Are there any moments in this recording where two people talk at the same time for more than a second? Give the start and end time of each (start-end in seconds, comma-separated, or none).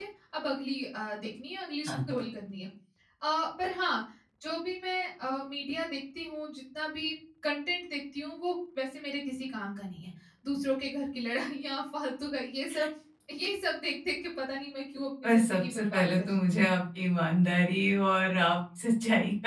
15.2-16.6